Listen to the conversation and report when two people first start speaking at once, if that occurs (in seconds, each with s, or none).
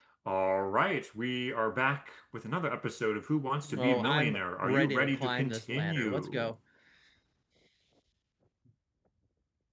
3.6 s